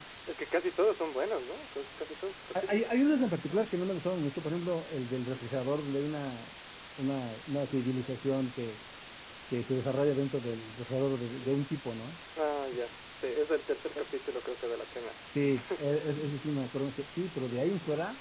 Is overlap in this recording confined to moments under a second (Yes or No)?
Yes